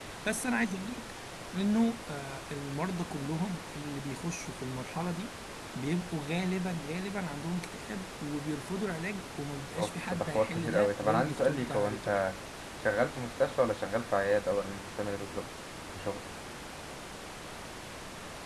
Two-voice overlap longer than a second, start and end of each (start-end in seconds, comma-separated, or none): 9.8-12.2